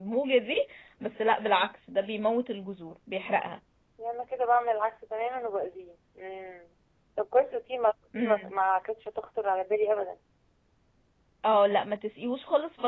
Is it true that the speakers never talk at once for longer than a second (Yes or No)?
Yes